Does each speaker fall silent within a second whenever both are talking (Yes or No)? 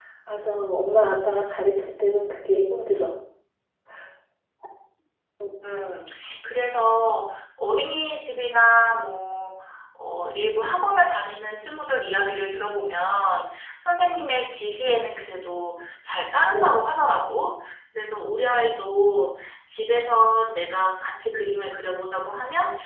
Yes